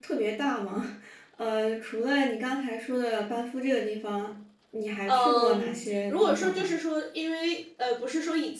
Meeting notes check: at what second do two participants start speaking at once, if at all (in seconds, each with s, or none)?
5.1 s